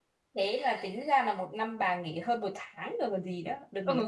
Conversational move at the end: taking over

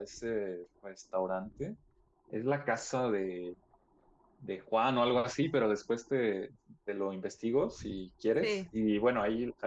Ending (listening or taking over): listening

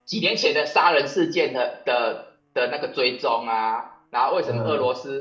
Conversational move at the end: listening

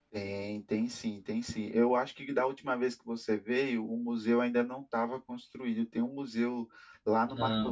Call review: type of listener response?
listening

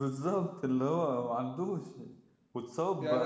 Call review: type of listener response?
listening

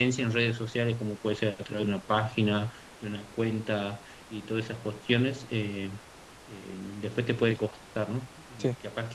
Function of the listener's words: listening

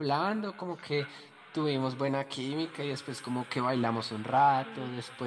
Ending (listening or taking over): listening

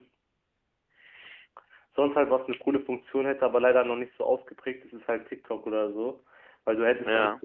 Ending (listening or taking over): listening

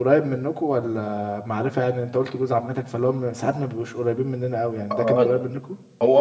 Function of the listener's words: taking over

